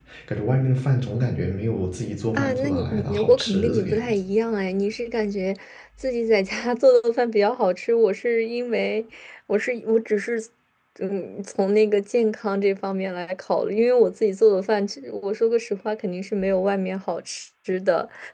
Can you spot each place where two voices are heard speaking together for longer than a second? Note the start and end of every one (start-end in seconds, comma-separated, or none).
2.3-4.0